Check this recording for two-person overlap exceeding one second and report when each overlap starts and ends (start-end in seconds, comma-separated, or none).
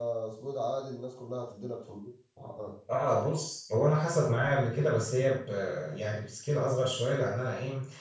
none